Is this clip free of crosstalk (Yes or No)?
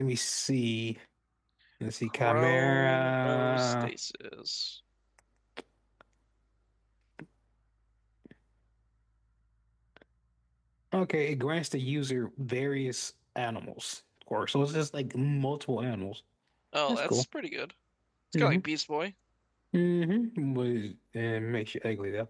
No